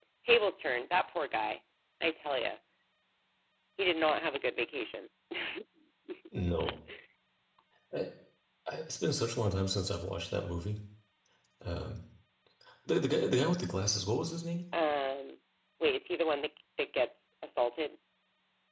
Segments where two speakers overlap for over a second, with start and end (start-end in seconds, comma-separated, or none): none